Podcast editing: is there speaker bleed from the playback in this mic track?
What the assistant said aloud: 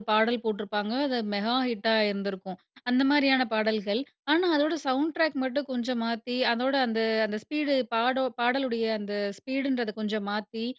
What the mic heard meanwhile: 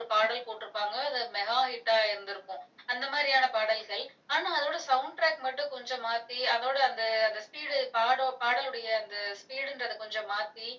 Yes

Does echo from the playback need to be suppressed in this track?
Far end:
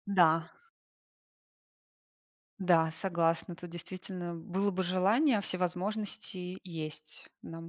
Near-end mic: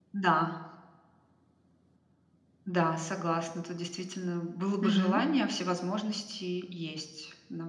Yes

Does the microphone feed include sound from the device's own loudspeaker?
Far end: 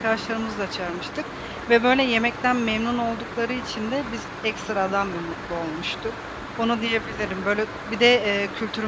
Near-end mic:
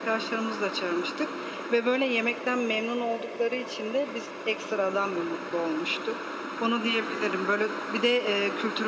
Yes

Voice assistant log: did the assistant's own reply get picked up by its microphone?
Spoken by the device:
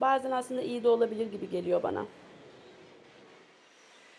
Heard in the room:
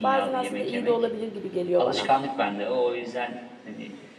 Yes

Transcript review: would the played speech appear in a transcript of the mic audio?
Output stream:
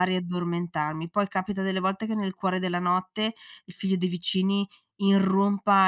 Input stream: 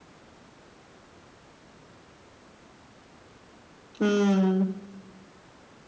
No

